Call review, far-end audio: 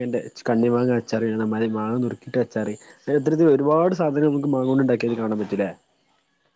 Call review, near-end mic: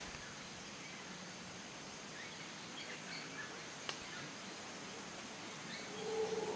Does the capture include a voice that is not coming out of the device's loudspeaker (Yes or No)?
No